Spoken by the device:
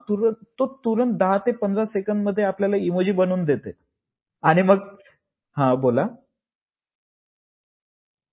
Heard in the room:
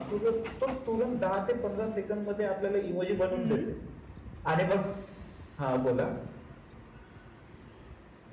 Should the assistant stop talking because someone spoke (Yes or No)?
Yes